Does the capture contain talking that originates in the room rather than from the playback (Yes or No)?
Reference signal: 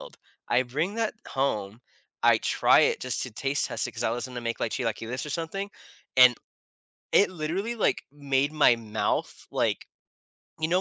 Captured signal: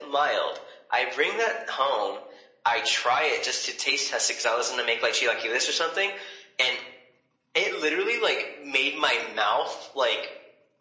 No